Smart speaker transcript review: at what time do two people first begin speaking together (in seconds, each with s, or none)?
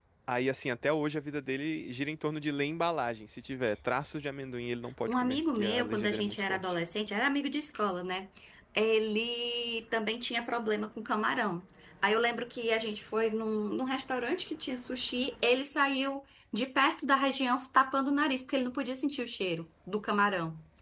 5.1 s